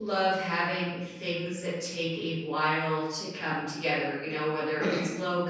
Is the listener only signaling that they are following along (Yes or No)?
Yes